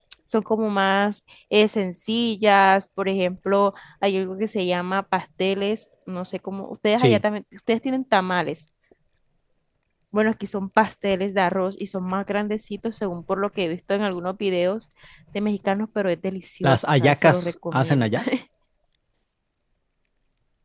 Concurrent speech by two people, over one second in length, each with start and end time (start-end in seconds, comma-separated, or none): 16.6-18.1